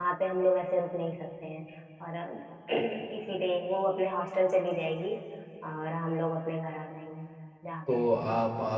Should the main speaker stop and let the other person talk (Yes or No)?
Yes